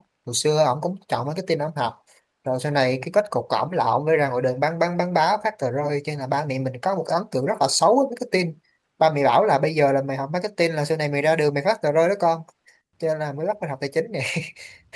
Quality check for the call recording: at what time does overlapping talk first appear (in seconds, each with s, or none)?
none